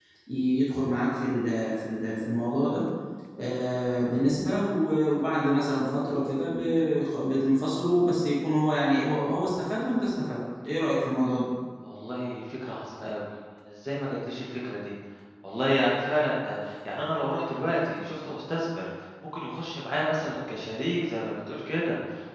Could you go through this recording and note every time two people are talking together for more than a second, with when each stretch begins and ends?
none

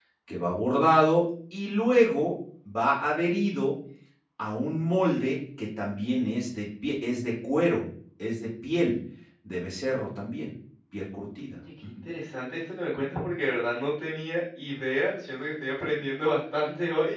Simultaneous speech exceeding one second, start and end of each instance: none

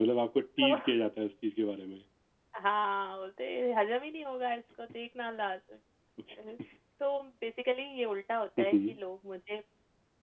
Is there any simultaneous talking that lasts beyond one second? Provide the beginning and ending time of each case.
none

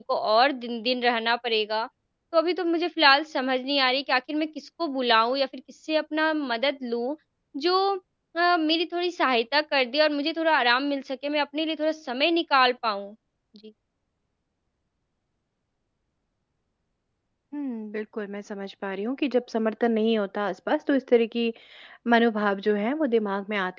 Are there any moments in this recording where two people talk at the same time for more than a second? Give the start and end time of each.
none

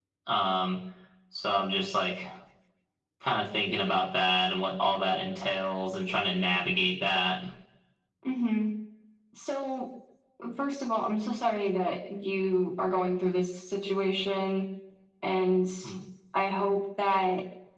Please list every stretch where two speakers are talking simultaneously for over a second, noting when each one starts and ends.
none

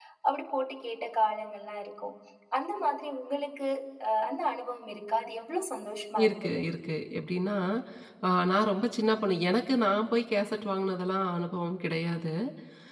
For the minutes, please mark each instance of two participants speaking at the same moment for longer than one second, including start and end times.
none

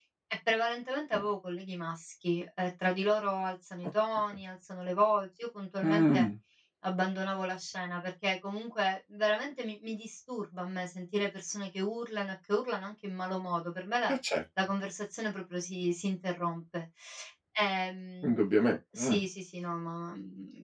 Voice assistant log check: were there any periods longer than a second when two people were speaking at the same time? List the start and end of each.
none

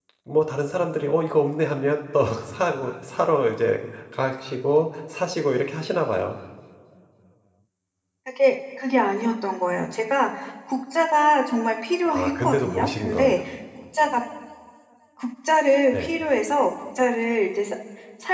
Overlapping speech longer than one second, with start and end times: 12.0-13.4

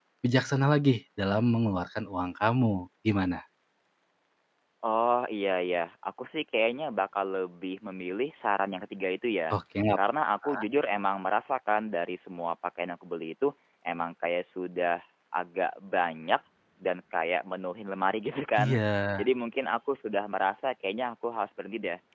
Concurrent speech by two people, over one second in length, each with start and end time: none

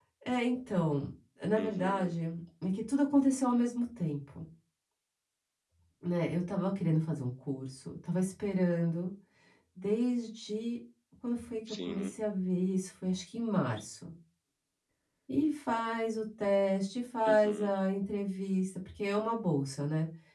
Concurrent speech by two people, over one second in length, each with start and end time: none

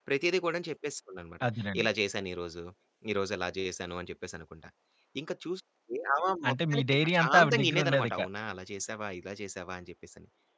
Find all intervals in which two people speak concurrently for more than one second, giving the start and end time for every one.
6.5-8.2

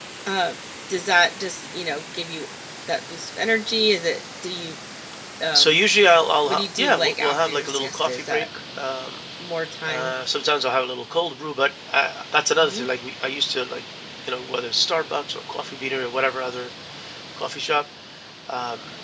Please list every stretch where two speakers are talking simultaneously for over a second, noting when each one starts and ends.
6.5-8.4

